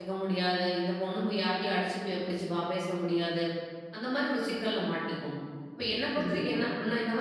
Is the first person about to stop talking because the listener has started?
No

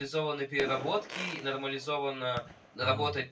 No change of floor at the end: Yes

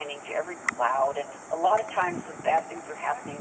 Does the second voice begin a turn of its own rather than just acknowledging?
No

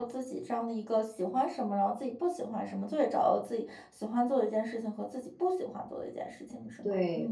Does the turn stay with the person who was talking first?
No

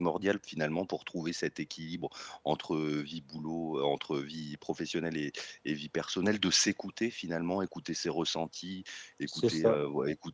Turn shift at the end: No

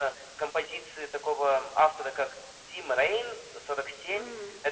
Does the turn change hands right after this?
No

